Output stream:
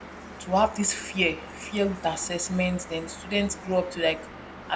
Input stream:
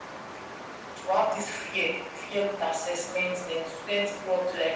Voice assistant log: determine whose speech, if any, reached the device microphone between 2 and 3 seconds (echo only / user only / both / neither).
echo only